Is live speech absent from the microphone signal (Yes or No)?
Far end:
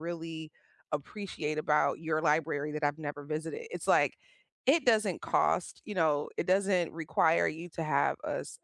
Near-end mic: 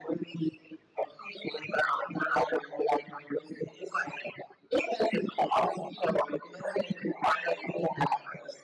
Yes